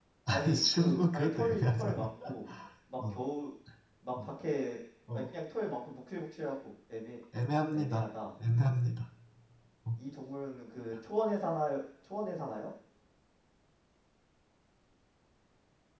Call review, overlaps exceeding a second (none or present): present